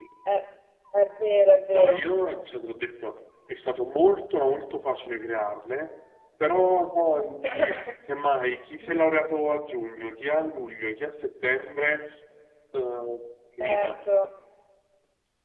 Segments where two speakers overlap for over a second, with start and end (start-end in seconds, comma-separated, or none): none